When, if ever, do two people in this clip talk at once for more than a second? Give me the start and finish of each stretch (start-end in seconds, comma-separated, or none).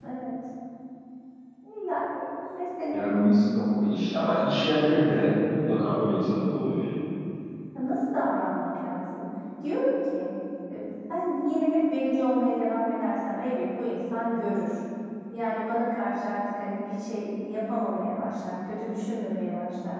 none